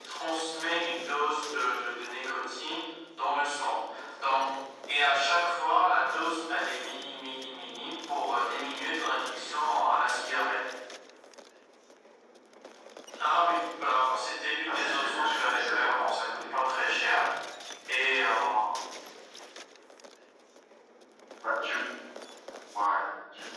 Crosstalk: present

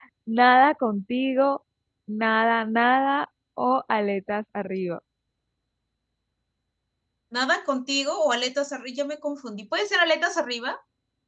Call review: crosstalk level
none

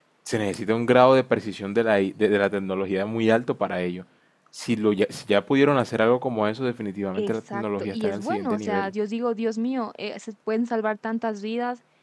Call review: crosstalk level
present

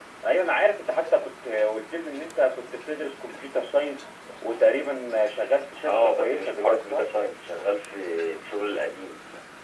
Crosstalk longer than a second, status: present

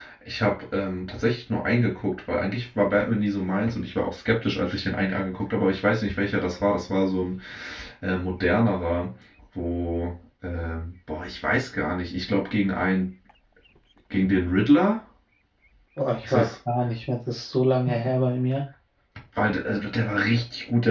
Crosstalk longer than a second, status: none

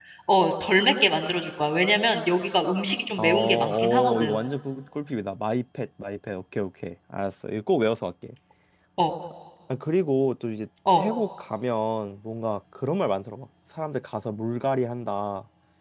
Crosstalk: present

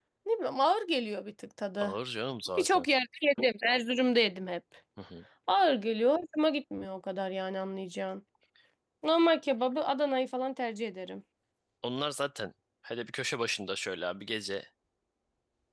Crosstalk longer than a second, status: none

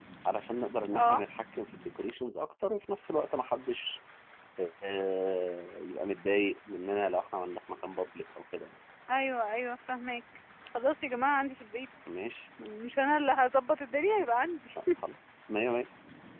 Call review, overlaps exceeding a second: none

